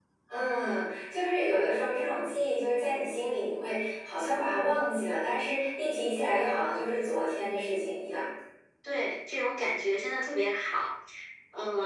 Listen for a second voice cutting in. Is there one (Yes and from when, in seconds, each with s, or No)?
No